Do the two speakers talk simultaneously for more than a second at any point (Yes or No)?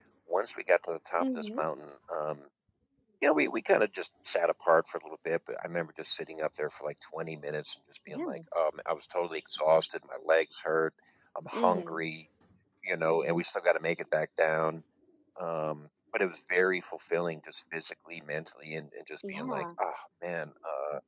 No